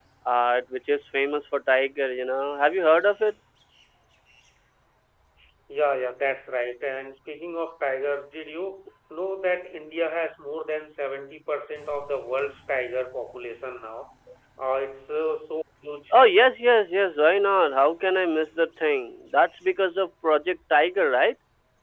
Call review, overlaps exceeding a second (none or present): none